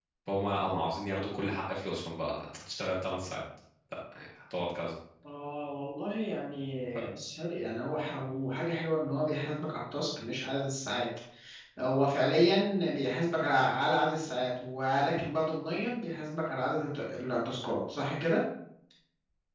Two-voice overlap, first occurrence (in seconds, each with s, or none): none